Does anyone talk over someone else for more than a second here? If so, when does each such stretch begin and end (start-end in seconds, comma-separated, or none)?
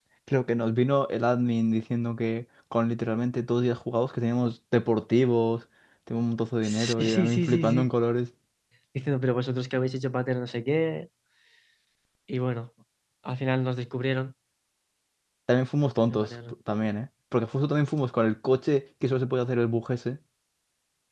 6.6-7.9